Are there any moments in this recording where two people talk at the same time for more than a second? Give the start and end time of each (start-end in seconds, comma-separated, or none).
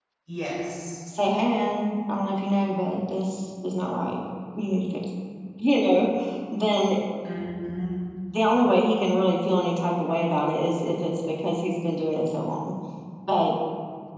none